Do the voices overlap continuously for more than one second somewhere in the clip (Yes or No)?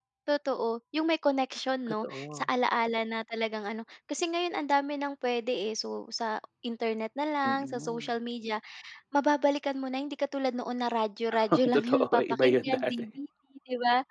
Yes